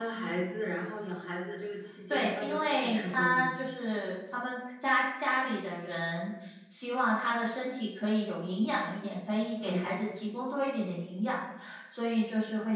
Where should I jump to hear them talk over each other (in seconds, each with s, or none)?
2.1 s